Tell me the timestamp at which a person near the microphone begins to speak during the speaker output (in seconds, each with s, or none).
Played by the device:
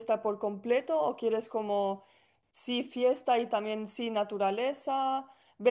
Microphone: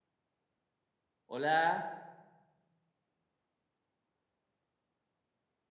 1.3 s